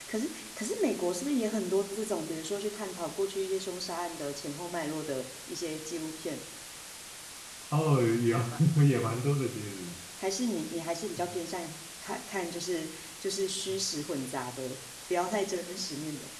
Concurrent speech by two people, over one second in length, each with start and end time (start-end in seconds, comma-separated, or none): none